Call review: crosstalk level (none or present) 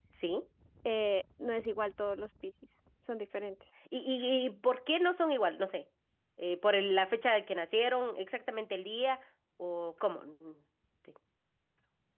none